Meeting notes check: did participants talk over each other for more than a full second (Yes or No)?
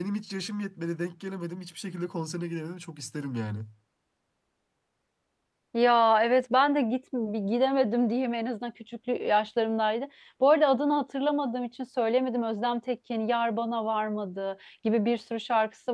No